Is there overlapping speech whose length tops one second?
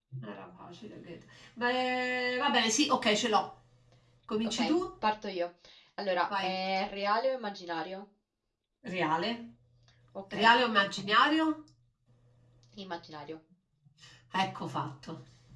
No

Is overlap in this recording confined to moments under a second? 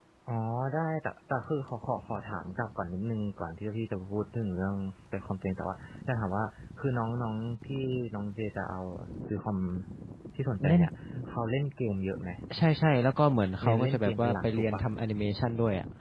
No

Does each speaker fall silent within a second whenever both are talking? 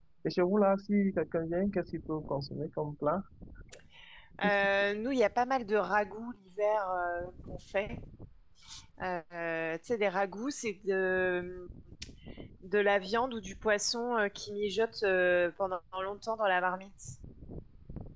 Yes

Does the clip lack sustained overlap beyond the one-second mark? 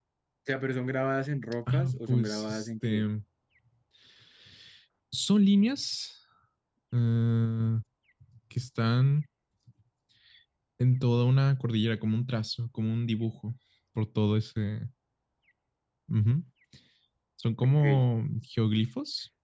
No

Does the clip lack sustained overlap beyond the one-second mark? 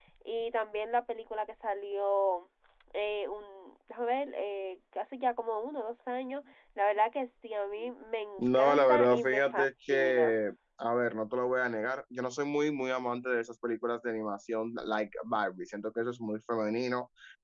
No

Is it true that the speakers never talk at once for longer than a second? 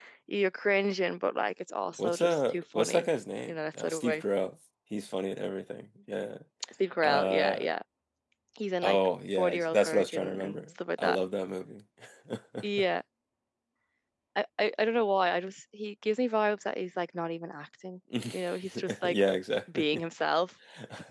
No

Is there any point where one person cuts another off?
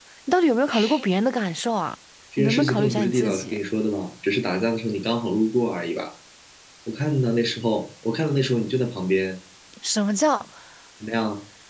Yes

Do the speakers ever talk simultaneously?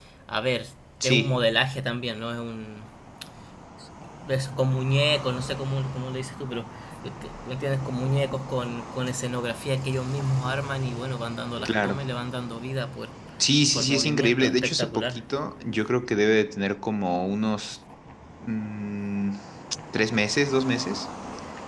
Yes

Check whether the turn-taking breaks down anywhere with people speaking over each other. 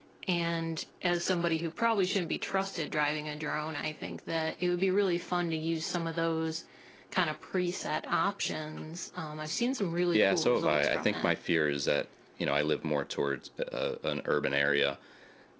Yes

